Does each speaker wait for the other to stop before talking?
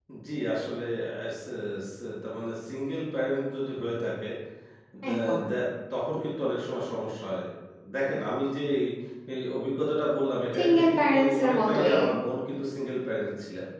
No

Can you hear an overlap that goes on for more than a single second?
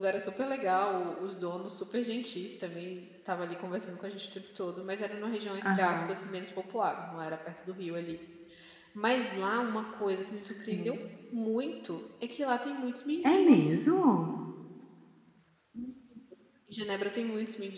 No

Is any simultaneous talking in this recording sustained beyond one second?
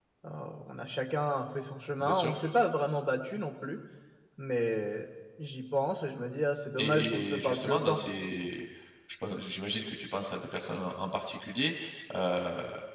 Yes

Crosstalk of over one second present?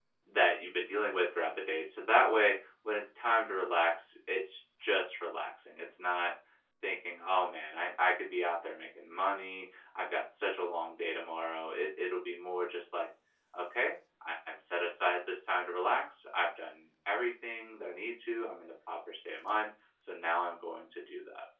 No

